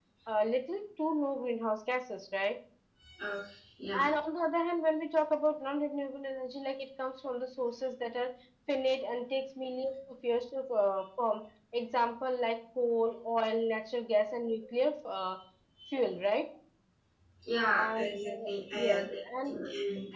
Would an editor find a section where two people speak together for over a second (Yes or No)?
Yes